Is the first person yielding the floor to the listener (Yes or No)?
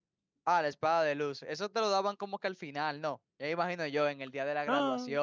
No